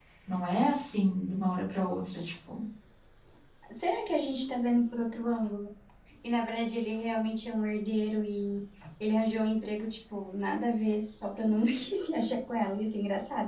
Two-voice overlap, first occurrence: none

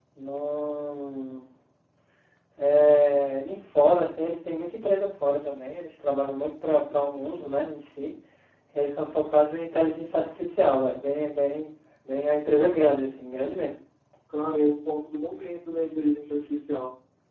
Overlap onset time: none

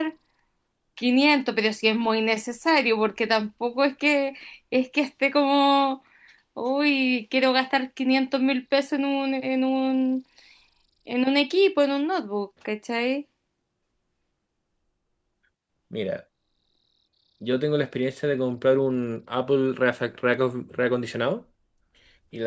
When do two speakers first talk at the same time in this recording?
none

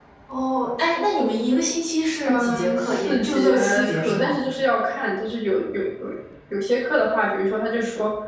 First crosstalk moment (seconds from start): 2.2 s

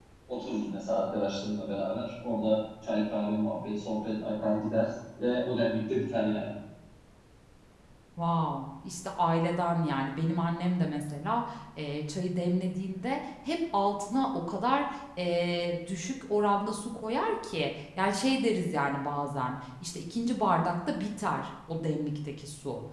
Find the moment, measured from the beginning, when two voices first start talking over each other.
none

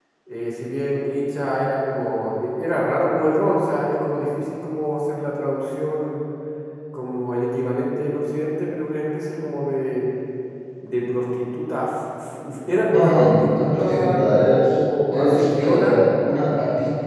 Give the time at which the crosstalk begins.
12.9 s

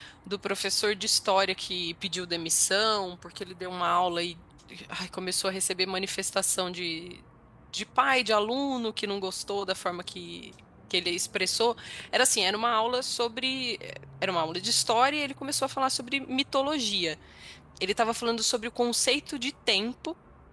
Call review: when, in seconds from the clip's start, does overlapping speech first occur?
none

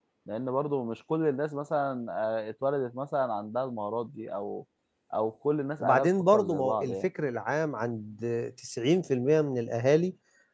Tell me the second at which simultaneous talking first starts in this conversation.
5.8 s

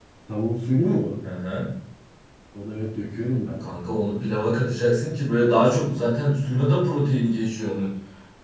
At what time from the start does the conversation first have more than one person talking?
none

